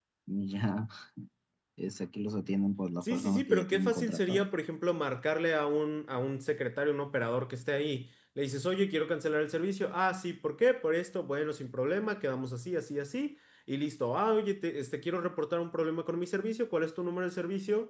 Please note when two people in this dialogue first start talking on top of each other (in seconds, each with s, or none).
3.0 s